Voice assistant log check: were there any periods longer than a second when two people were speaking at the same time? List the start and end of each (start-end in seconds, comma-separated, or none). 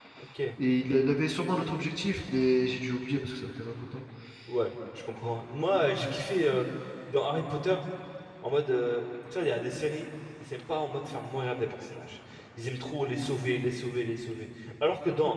none